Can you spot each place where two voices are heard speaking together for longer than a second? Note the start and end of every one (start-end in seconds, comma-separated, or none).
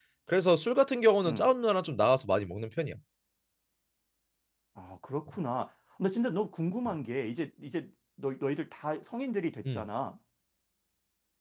none